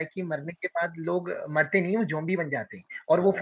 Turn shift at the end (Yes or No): No